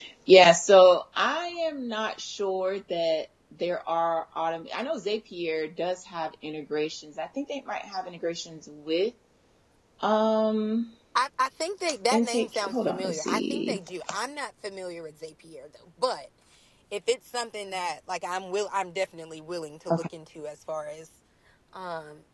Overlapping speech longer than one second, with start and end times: 12.1-13.8

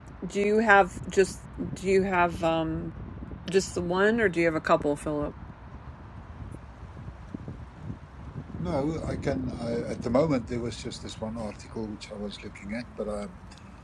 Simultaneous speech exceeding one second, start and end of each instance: none

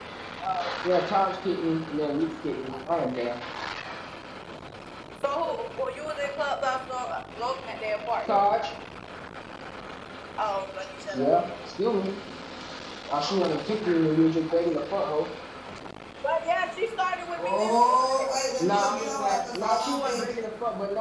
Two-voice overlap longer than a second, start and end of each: 17.4-20.2

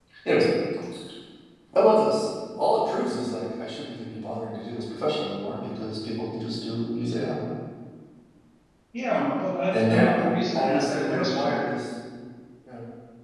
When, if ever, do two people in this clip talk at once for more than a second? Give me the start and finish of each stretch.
9.7-11.6

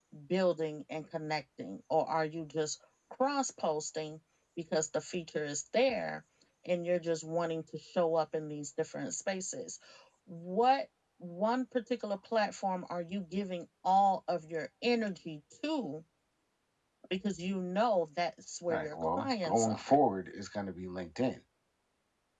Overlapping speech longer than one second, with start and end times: 18.7-20.0

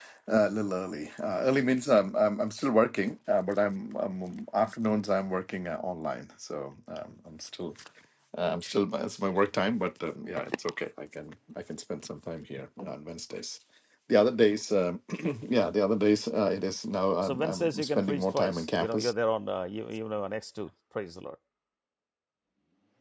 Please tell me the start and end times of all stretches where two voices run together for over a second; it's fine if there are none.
17.2-19.1

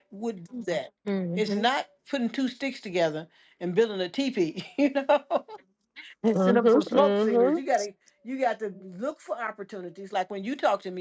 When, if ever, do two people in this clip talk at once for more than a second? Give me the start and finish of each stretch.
6.3-7.6

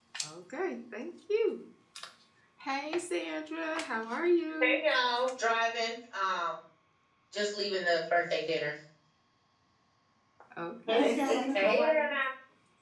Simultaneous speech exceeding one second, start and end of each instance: 10.9-12.1

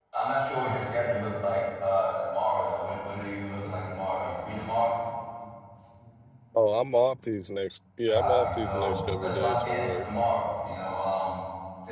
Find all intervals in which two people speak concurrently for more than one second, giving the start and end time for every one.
8.1-10.0

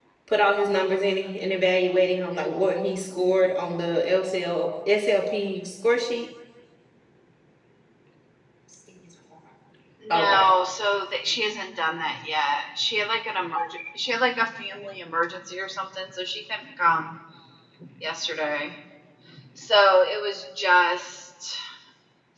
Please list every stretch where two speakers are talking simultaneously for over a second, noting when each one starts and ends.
none

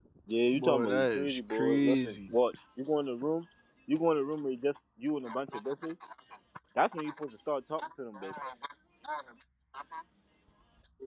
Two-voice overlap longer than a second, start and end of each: 0.5-2.2

